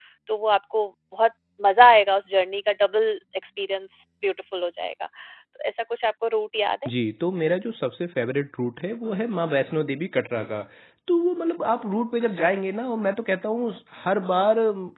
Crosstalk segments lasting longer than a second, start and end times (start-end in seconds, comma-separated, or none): none